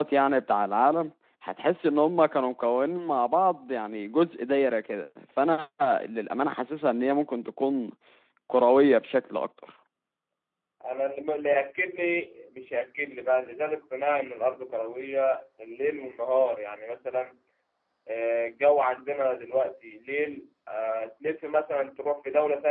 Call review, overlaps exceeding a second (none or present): none